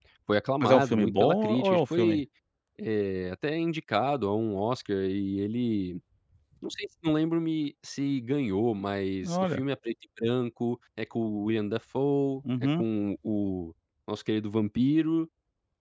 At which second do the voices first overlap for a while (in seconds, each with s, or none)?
0.6 s